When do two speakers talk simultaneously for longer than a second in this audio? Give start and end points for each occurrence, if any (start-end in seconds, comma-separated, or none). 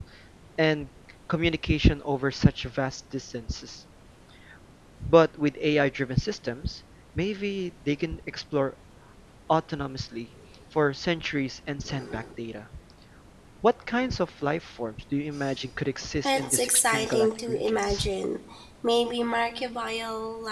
16.2-18.1